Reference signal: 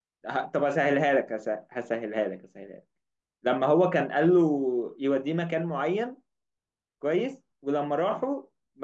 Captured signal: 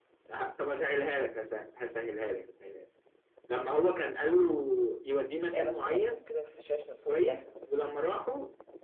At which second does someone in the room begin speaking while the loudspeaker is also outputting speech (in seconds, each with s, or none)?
5.5 s